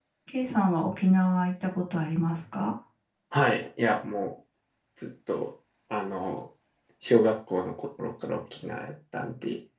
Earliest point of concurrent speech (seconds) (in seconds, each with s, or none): none